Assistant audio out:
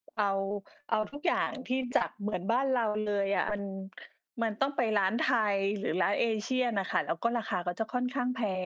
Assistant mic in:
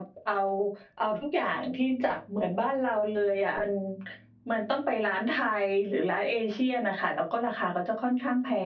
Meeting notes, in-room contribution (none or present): none